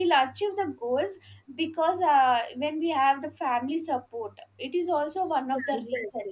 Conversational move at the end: taking over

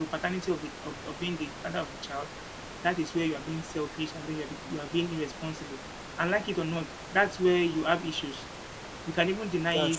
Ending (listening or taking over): listening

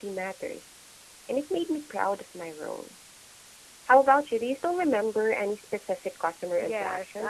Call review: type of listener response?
taking over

